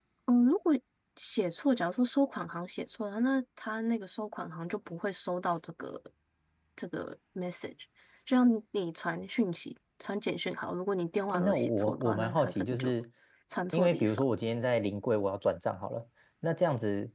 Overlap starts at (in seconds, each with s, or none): 11.3 s